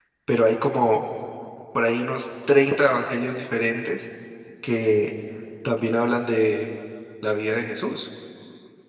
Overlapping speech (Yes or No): No